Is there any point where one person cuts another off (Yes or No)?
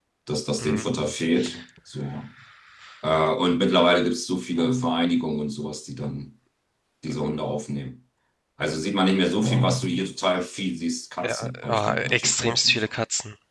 Yes